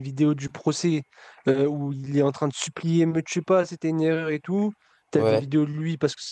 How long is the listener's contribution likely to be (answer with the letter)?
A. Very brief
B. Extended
A